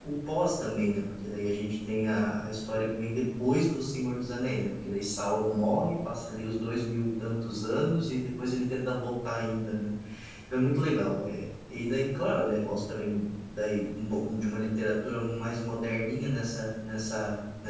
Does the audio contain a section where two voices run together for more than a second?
No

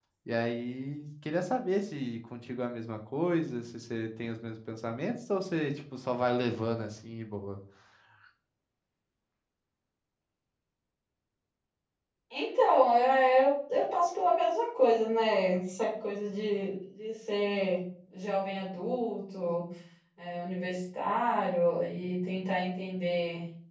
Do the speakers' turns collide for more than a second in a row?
No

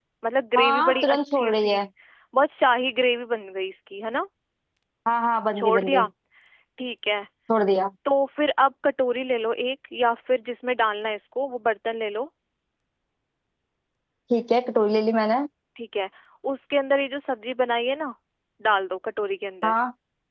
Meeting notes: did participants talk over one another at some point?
Yes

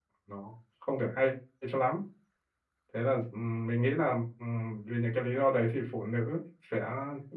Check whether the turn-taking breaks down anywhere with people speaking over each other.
No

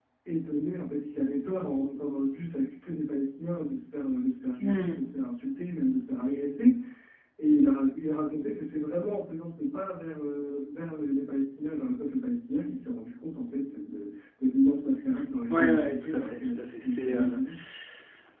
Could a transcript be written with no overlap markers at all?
No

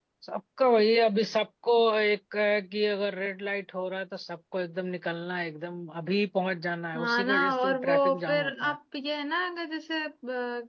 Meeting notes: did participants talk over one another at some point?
Yes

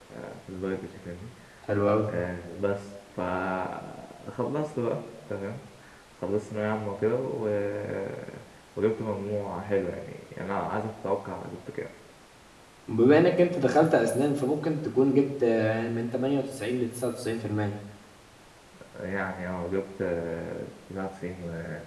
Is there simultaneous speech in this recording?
No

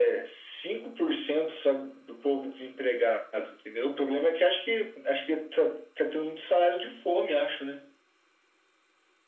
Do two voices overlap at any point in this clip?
No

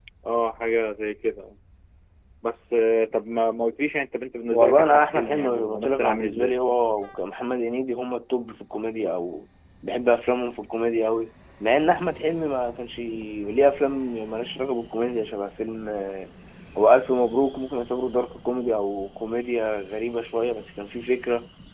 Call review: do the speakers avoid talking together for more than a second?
No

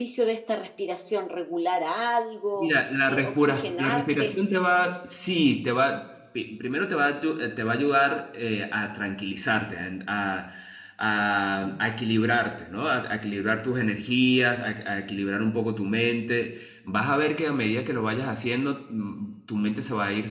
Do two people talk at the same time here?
Yes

